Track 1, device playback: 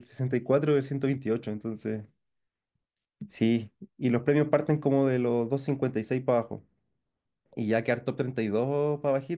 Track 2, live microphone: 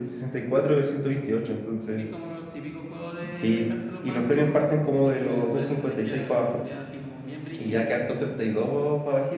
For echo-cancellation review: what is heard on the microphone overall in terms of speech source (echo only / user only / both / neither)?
both